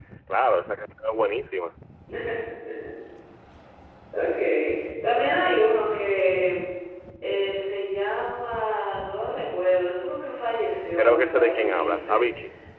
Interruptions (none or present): present